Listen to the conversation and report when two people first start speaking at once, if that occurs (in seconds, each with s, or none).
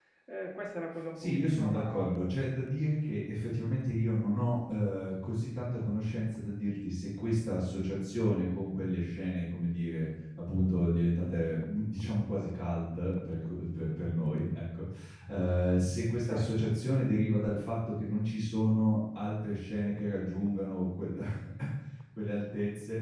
1.2 s